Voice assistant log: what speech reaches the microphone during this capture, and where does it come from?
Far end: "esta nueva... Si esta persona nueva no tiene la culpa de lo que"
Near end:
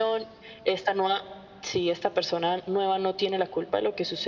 echo only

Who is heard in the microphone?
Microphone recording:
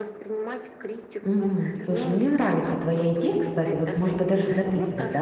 both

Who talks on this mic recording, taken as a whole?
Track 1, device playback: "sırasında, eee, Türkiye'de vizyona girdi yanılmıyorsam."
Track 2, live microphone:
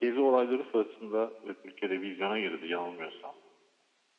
echo only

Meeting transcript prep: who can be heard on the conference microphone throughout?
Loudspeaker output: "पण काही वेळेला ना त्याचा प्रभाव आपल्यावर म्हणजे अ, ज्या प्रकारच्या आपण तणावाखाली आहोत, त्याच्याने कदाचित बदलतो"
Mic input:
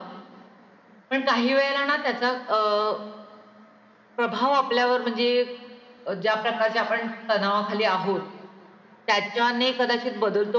echo only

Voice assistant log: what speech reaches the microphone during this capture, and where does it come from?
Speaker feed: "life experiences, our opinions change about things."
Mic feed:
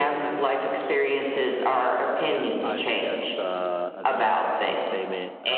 both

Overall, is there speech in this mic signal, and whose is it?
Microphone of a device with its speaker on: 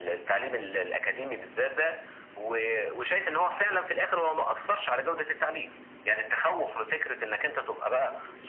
echo only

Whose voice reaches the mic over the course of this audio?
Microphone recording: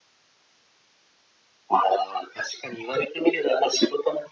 echo only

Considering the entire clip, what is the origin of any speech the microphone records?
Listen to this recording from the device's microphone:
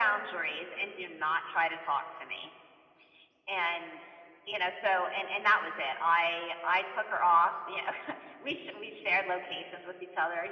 echo only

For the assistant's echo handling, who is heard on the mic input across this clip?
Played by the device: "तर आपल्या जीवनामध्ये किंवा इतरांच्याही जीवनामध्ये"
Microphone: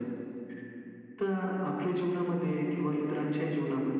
echo only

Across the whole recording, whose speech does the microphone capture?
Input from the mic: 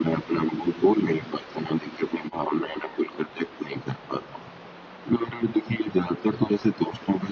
echo only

